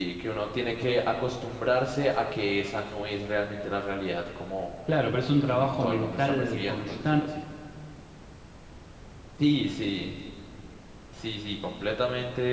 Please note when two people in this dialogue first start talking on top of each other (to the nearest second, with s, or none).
5 s